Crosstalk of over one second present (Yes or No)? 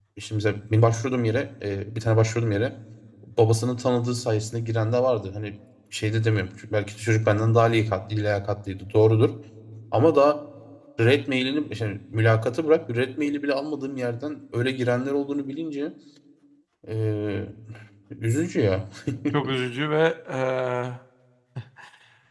No